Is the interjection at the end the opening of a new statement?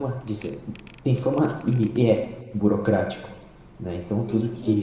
Yes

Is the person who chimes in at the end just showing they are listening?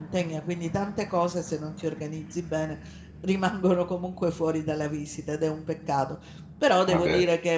Yes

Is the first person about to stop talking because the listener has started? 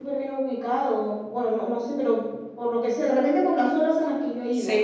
Yes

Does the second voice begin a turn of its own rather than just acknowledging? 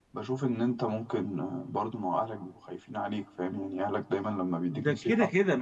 Yes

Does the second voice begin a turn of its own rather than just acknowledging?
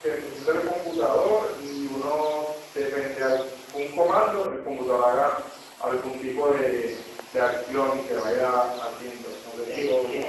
Yes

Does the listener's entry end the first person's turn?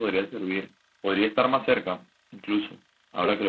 Yes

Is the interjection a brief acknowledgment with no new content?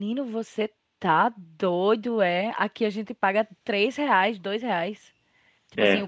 Yes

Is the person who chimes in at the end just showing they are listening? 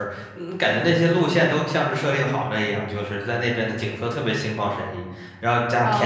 No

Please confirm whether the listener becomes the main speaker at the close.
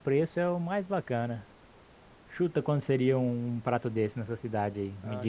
Yes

